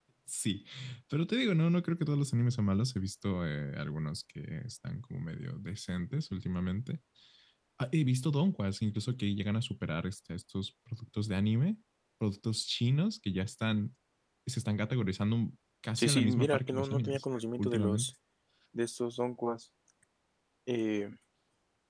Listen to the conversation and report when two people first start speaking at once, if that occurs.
16.0 s

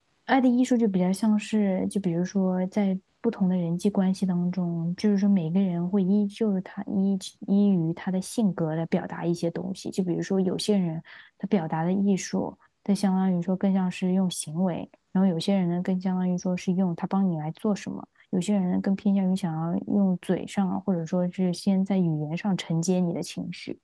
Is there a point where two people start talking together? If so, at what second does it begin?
none

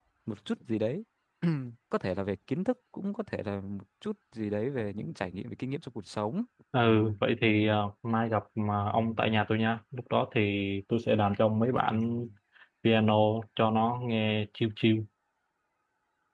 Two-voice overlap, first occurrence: none

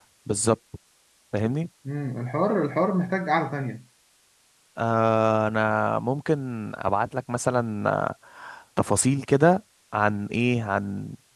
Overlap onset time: none

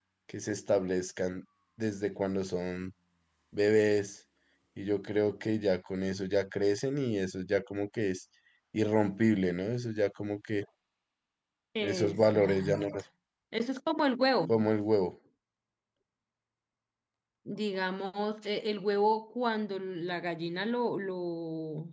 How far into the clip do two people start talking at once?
11.8 s

